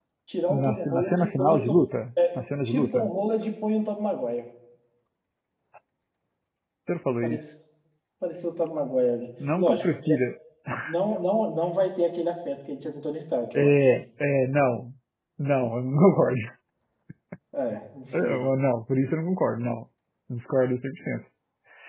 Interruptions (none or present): present